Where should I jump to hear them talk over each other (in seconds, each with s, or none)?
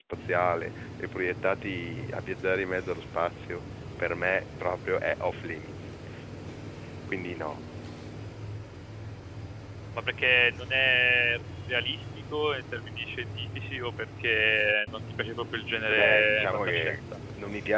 15.9 s